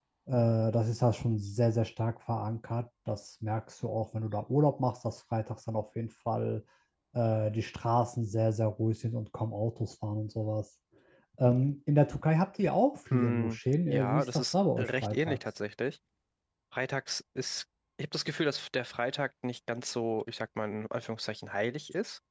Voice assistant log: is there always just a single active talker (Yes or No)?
No